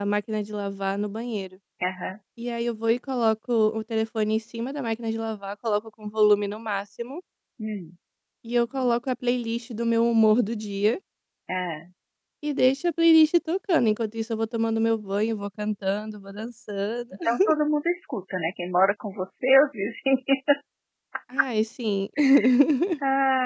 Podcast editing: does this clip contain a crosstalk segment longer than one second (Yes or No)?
No